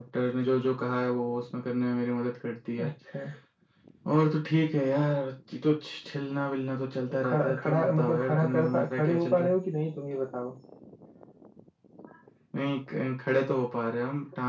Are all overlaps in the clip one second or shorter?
No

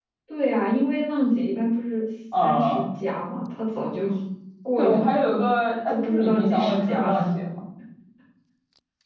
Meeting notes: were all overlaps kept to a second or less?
No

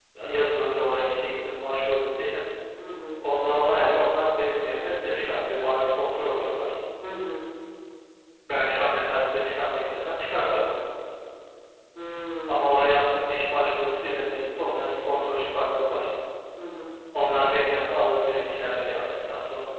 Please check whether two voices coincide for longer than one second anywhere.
No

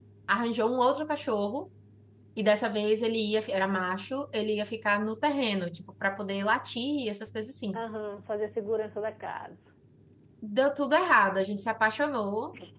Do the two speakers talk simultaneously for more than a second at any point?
No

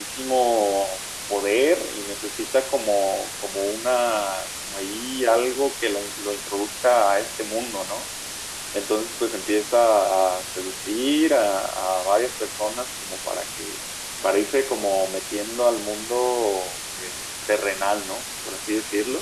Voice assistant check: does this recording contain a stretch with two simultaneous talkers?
No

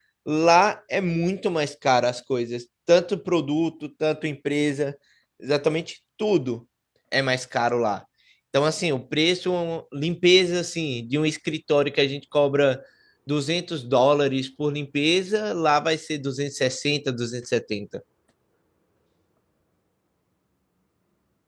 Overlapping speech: No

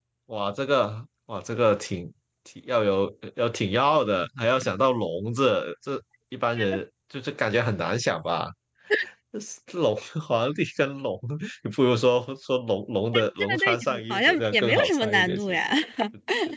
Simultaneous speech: Yes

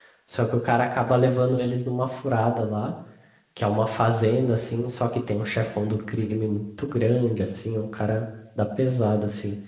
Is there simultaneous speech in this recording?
No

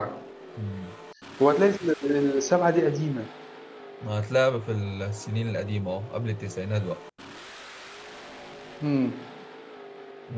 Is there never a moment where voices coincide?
Yes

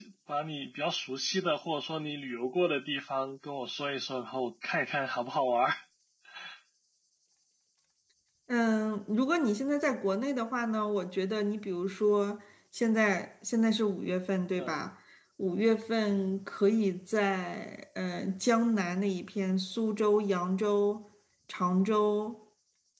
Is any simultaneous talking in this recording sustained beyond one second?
No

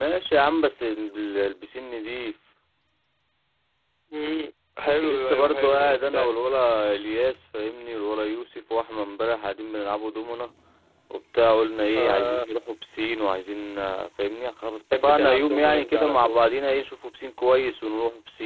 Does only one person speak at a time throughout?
No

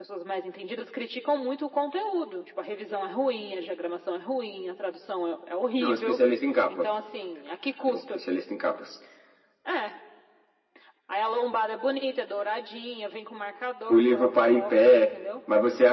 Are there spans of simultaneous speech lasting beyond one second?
Yes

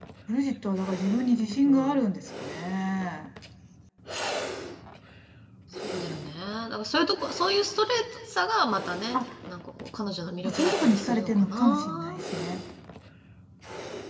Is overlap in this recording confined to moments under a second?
No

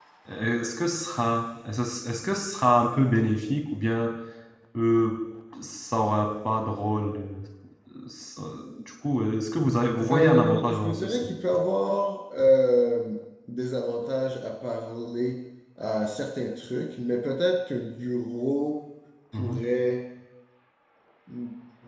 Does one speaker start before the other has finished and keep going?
Yes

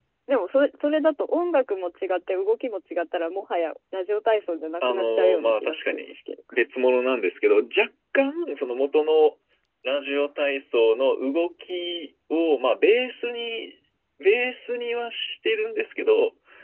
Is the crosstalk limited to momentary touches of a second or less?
No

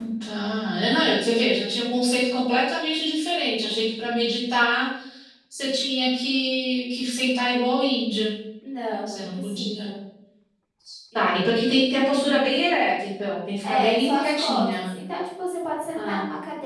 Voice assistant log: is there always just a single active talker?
No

